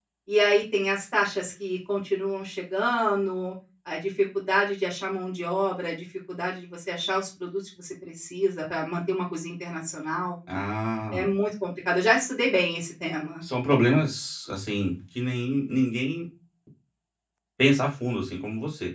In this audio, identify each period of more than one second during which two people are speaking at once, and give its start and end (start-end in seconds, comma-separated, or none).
none